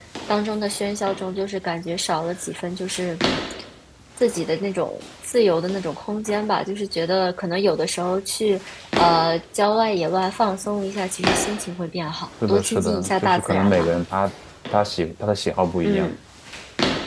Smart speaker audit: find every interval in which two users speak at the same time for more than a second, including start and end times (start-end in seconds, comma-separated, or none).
12.5-13.9